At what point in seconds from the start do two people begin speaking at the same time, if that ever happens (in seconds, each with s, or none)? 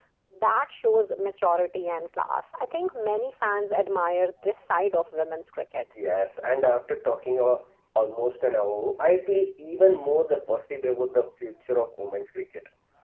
none